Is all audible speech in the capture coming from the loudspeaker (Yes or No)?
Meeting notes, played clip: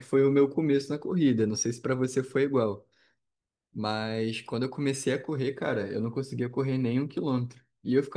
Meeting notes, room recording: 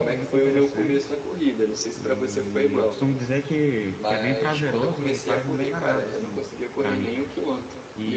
No